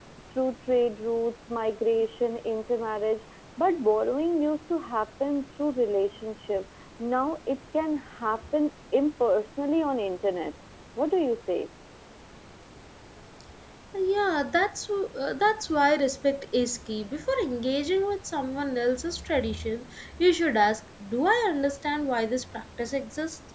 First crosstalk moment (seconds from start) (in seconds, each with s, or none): none